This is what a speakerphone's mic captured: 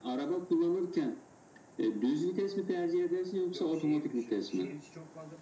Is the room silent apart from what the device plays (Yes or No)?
No